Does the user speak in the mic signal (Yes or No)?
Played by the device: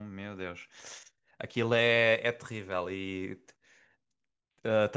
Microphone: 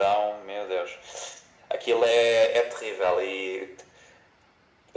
No